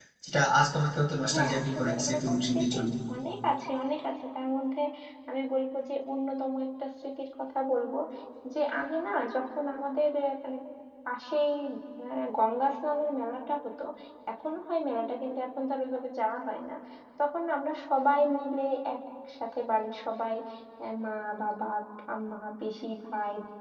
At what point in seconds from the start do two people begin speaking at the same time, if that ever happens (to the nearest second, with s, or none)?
1 s